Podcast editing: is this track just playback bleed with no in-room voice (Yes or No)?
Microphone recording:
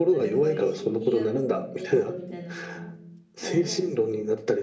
No